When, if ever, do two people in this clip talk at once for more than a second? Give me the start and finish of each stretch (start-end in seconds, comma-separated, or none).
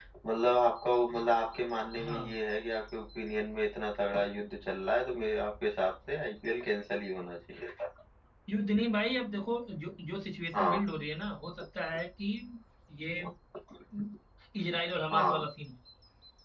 none